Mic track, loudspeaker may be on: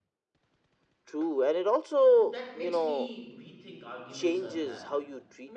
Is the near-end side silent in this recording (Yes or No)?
No